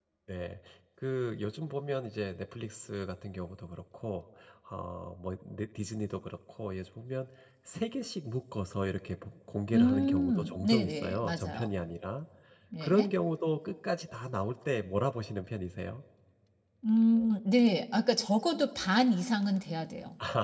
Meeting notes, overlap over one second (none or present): present